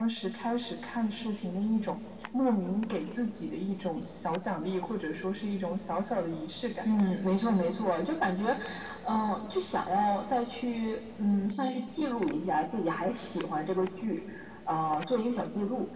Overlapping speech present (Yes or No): No